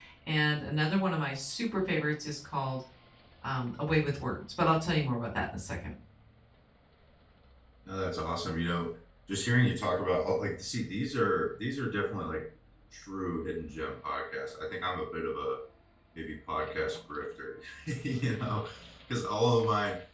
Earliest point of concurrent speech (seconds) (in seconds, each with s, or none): none